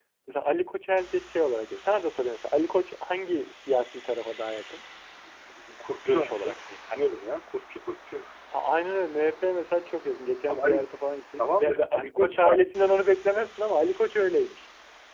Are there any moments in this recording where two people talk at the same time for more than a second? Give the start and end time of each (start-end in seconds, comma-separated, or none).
11.4-12.7